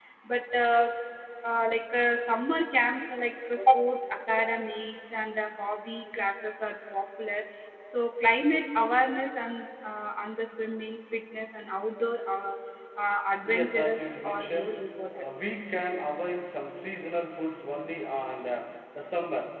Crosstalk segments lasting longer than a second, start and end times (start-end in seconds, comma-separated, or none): 13.4-14.8